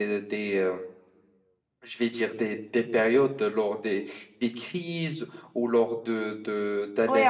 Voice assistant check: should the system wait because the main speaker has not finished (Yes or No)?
No